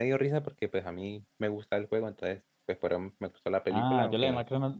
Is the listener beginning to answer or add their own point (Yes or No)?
Yes